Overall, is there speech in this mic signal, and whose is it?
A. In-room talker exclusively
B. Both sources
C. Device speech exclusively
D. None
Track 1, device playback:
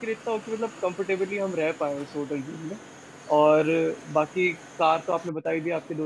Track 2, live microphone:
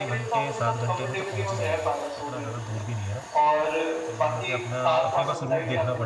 B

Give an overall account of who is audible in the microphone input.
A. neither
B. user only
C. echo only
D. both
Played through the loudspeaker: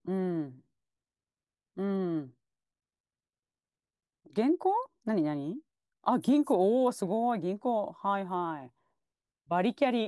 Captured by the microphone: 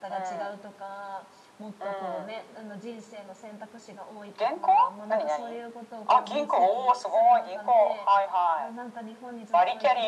D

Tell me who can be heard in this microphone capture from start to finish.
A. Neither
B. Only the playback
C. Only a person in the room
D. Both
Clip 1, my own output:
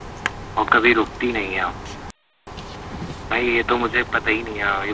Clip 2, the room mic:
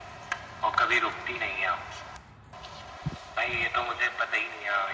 B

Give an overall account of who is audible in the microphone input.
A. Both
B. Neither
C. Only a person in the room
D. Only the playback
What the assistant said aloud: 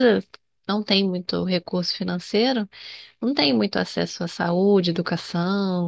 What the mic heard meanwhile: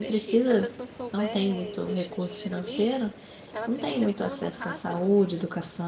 A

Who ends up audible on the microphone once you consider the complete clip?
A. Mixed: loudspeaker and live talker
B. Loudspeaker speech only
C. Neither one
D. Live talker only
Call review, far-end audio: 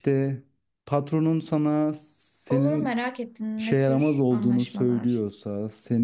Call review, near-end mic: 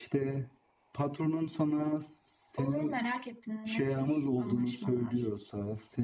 B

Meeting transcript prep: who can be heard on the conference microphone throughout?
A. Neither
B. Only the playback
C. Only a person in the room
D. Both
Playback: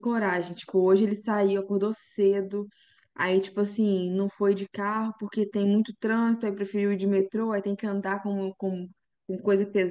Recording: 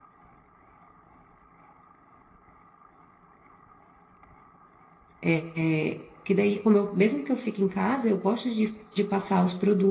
C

